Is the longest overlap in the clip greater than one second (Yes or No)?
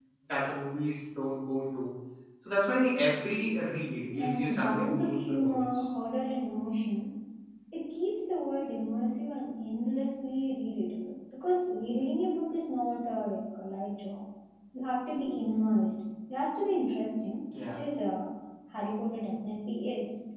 Yes